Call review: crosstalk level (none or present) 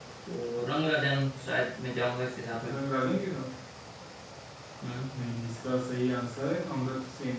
none